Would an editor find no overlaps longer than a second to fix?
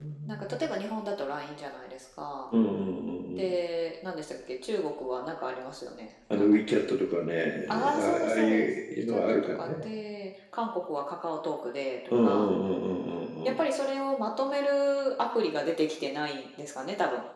No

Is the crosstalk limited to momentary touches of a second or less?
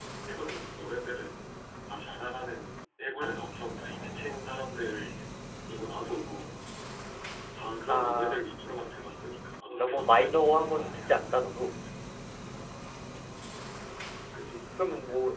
No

